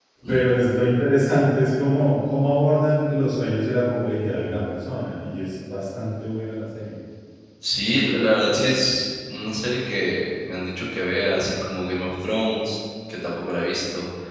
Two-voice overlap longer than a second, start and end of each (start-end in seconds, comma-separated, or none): none